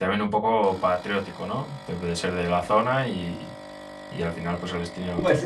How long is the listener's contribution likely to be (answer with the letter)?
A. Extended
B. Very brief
A